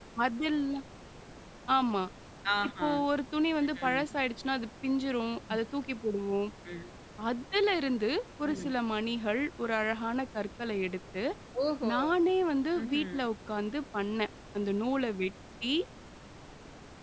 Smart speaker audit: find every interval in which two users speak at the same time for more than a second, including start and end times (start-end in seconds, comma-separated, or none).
none